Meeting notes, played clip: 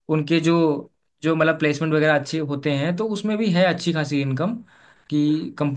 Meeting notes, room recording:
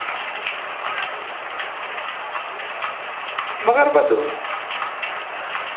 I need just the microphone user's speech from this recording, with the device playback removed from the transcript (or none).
मगर बस